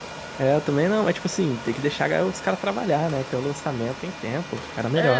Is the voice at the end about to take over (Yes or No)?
Yes